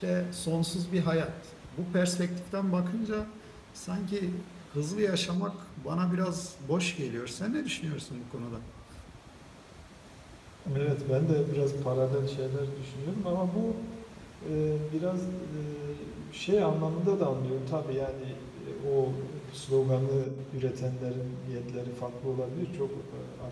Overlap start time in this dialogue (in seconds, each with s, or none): none